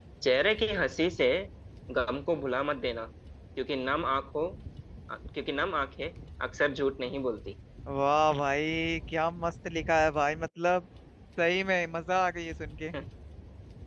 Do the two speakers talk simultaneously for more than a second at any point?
No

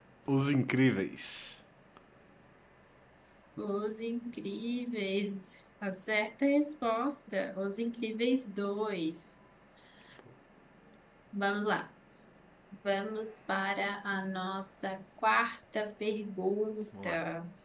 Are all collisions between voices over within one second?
Yes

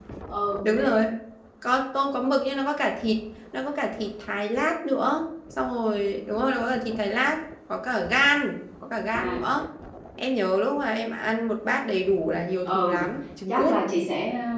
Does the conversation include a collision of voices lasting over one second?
No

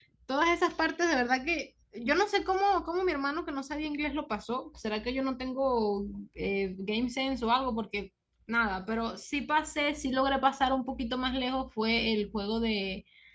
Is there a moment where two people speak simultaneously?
No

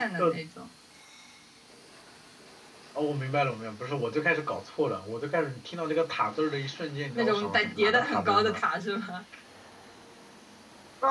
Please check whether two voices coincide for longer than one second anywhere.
Yes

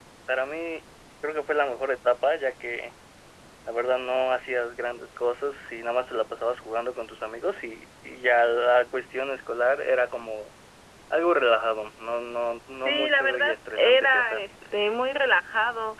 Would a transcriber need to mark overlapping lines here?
Yes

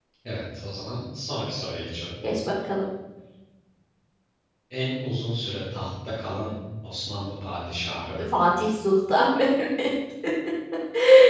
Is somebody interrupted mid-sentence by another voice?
No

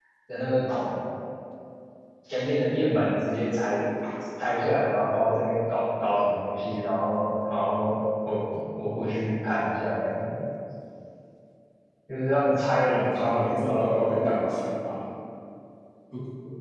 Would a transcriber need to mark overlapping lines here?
Yes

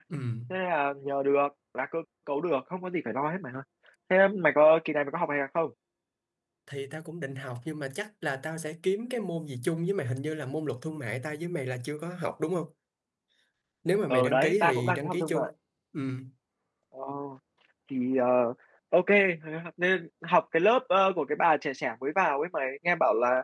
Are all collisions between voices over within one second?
No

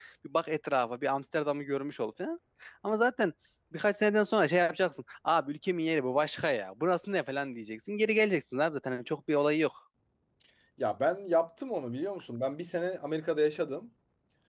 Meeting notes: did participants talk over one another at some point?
No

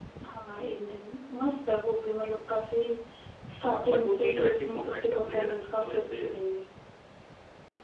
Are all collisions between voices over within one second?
No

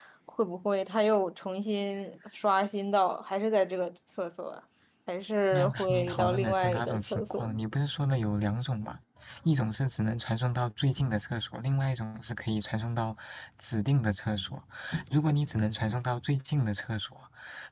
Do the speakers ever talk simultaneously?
Yes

